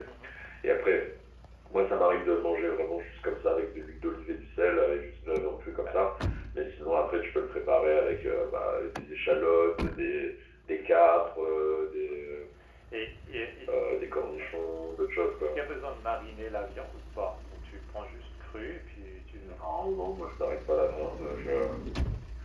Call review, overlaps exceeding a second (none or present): none